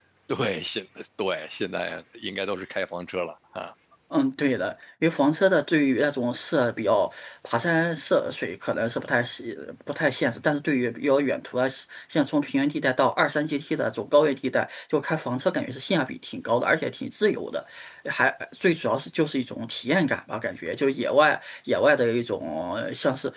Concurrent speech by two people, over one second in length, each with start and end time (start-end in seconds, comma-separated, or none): none